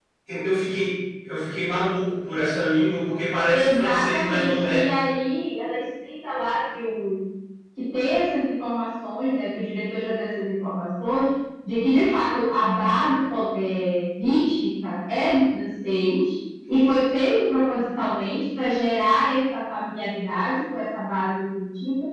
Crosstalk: present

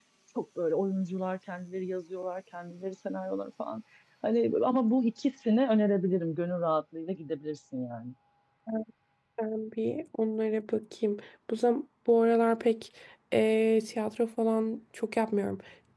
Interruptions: none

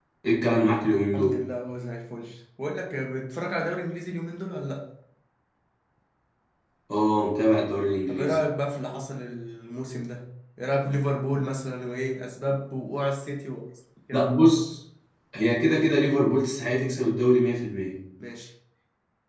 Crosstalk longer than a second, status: none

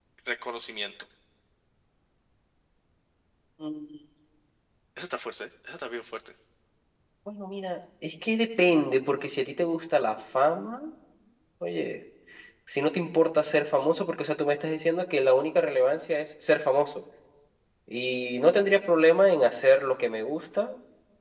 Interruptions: none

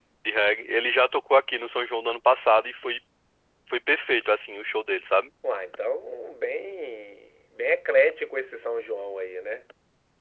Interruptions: none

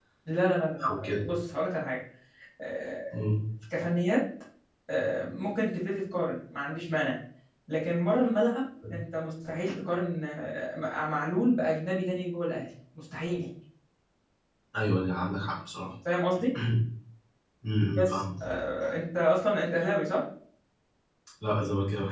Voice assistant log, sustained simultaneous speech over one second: none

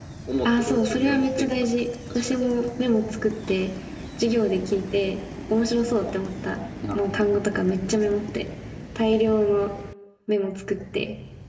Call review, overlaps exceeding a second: present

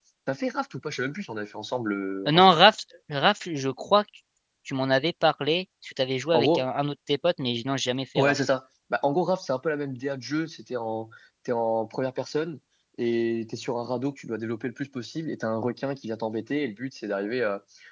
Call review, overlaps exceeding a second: none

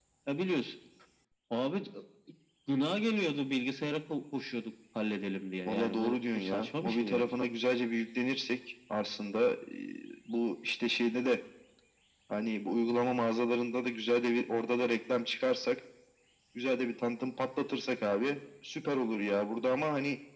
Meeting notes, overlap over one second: present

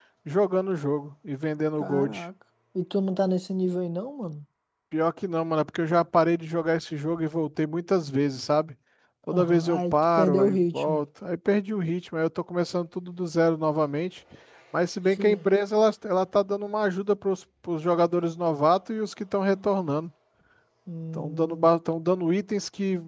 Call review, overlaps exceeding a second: present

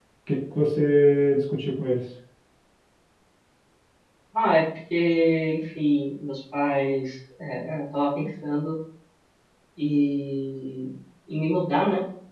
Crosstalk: none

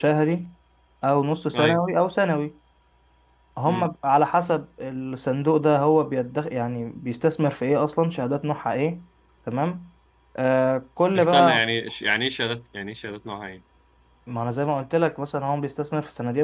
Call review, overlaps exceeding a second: none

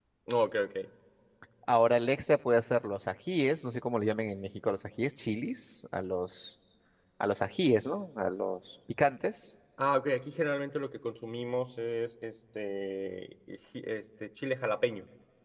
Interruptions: none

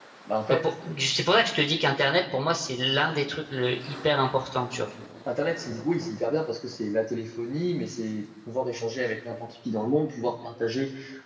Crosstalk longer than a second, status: none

